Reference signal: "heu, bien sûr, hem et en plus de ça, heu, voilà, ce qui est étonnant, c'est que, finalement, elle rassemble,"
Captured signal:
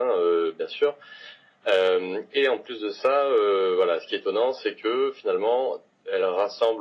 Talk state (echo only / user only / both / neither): echo only